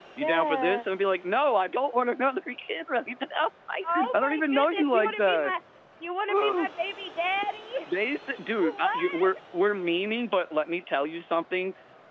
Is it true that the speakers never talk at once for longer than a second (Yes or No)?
No